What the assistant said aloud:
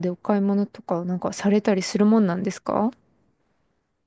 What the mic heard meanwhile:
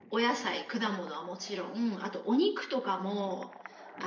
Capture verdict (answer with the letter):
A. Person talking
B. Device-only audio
A